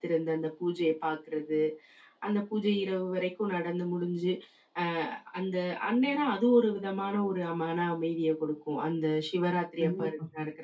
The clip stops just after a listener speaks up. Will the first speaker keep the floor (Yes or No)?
Yes